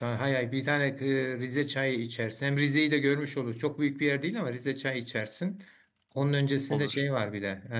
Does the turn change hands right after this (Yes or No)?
No